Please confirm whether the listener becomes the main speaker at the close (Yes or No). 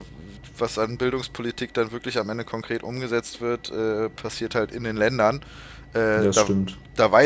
No